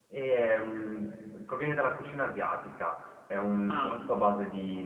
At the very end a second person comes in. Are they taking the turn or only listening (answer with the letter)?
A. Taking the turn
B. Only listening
B